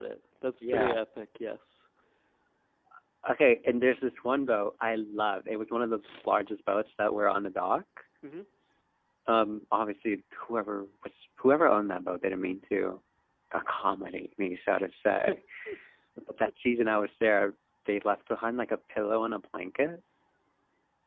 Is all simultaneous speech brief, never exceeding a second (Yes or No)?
Yes